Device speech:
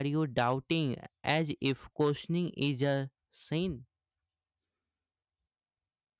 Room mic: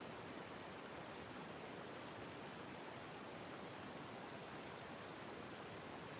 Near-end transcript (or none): none